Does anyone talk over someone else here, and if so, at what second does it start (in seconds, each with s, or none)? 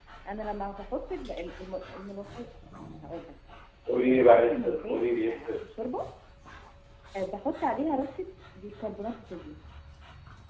4.0 s